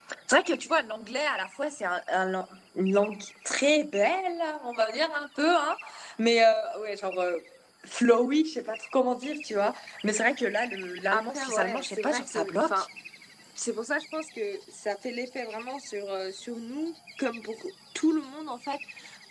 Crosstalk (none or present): present